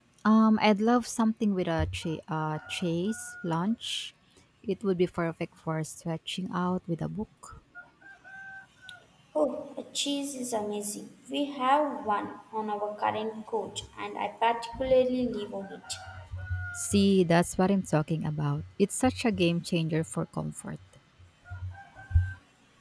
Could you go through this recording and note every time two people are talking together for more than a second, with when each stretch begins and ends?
none

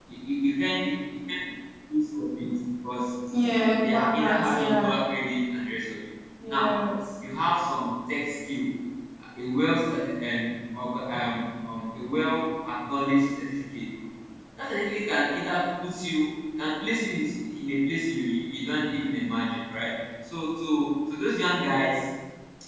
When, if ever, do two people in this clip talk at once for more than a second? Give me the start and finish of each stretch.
3.5-4.9

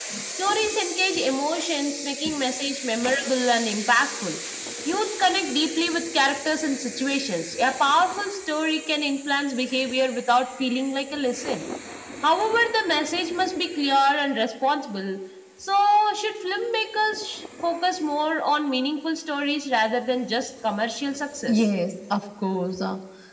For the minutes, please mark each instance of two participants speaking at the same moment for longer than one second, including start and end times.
none

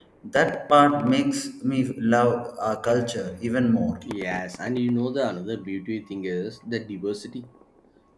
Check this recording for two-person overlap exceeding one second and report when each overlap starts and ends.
none

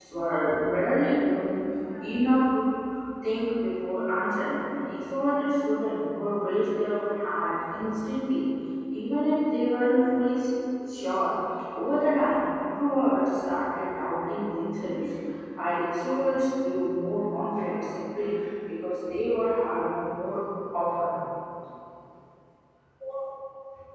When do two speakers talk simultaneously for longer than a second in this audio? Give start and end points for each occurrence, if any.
none

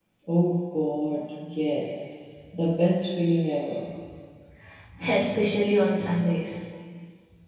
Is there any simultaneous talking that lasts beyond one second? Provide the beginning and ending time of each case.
none

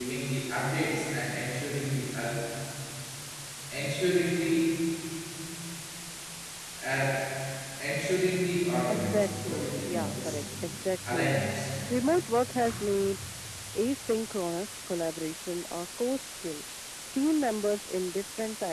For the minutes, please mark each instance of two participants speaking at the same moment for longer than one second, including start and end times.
8.9-10.3

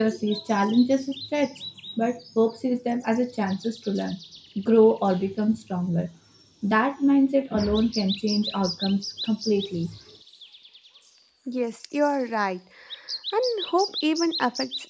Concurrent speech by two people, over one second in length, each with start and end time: none

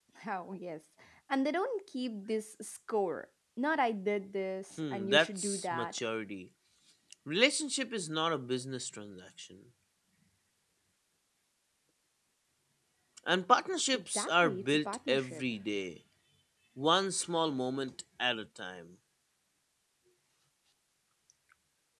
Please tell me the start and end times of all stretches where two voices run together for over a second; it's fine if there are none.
4.8-6.0, 13.9-15.4

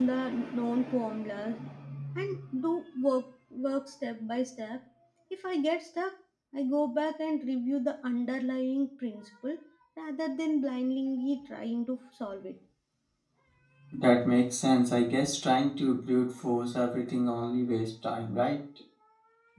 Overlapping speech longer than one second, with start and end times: none

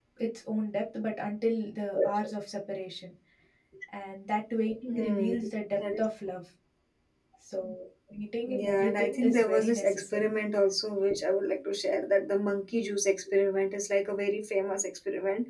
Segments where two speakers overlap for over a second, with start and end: 8.4-10.3

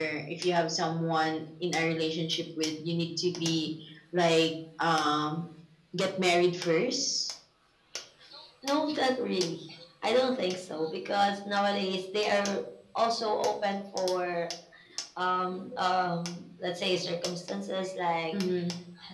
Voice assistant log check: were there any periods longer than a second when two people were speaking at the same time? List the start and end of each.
none

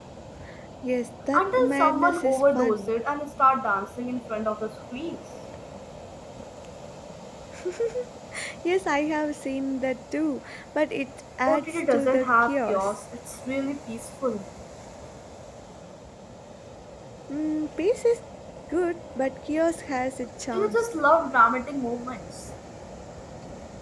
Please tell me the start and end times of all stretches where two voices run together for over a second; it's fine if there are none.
1.3-3.0, 11.5-12.9

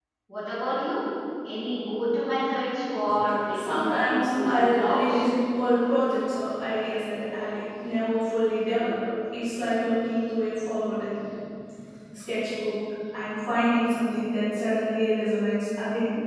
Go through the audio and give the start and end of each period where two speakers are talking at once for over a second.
3.5-5.2

